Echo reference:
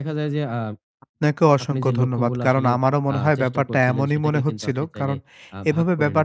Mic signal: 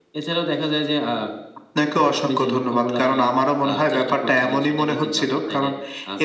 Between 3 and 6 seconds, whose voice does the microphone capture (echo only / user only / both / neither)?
echo only